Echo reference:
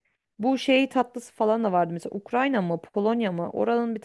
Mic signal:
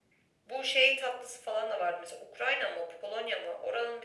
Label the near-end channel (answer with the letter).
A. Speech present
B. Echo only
B